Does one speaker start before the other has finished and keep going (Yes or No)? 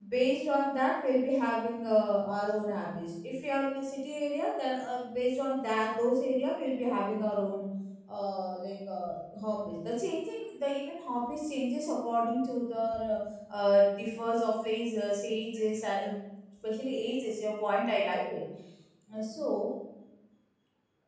No